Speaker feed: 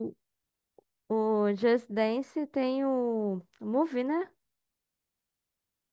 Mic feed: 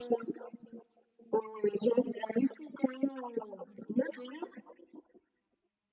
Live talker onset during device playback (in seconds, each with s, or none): none